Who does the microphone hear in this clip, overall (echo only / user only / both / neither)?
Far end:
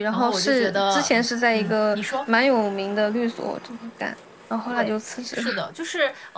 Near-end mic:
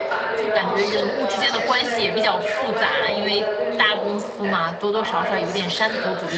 both